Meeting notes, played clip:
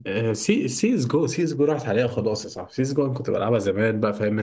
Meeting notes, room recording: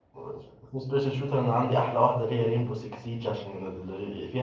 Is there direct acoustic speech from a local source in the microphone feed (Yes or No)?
Yes